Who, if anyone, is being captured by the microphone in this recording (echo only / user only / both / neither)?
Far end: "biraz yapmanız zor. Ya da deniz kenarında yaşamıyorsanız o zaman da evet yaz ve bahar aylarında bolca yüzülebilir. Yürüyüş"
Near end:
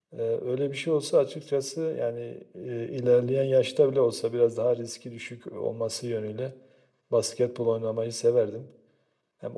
user only